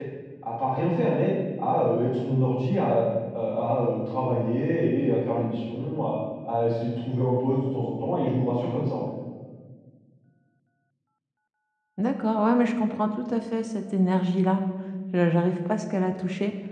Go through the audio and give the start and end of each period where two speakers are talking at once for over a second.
none

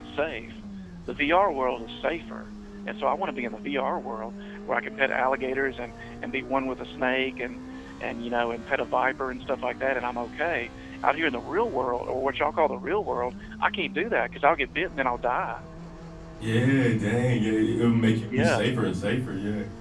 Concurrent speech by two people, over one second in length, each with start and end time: none

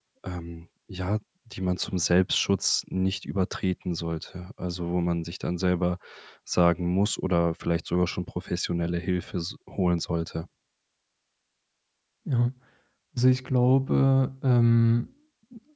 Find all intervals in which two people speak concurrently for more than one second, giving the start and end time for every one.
none

